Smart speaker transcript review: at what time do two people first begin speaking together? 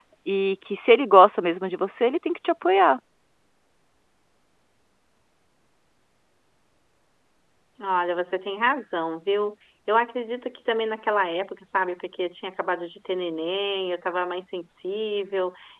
none

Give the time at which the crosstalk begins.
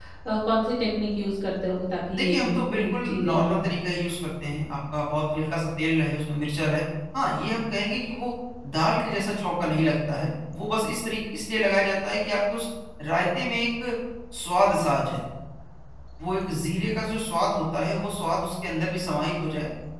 2.1 s

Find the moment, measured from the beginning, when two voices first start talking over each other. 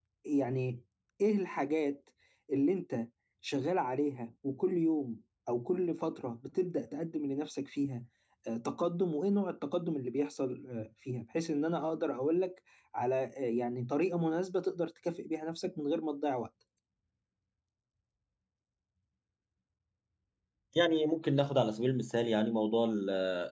none

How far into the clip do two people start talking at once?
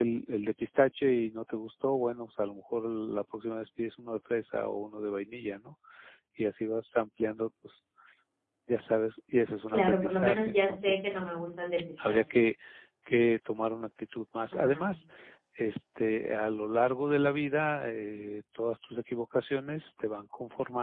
9.7 s

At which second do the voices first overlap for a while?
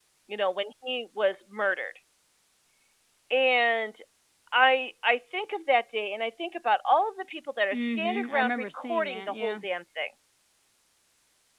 7.7 s

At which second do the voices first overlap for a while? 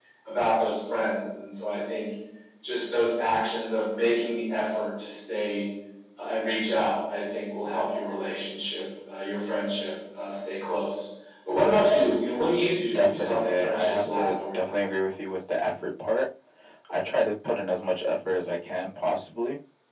12.9 s

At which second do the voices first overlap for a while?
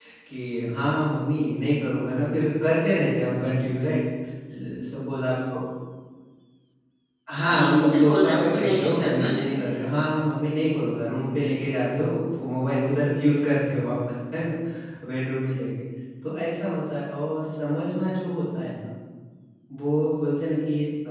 7.3 s

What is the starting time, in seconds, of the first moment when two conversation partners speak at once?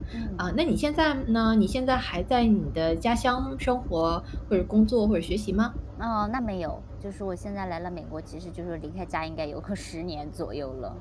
none

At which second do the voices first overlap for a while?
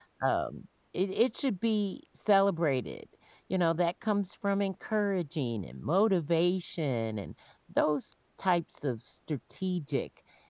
none

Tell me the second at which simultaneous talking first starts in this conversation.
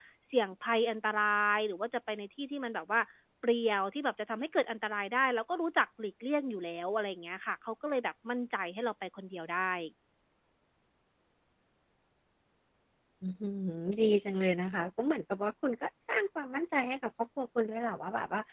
none

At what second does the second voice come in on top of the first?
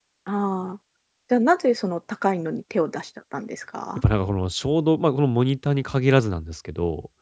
none

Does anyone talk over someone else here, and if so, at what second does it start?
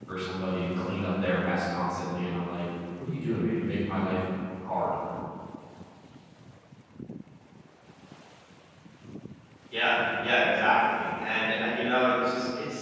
none

